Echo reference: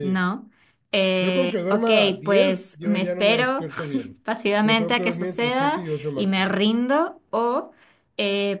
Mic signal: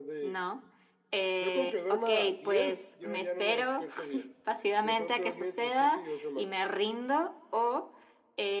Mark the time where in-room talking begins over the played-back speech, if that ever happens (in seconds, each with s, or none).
none